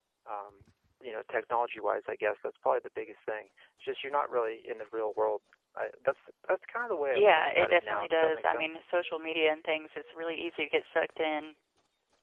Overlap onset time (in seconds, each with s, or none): 7.1 s